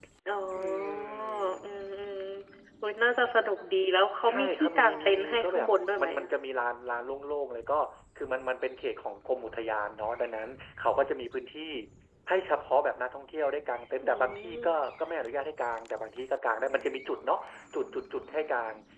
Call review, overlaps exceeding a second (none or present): present